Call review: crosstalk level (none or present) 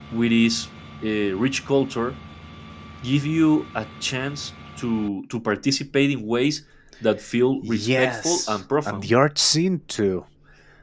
present